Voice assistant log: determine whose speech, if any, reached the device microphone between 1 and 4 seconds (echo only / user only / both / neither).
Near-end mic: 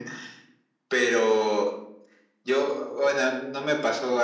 echo only